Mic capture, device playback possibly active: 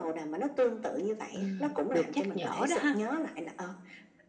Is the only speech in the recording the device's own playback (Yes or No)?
No